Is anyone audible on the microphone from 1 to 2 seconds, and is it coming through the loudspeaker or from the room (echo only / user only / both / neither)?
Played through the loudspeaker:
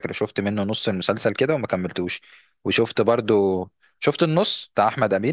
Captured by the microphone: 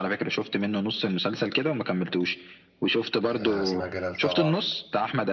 echo only